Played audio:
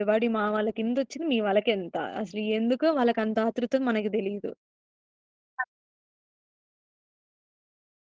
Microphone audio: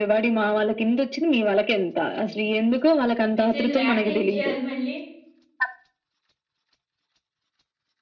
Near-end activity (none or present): present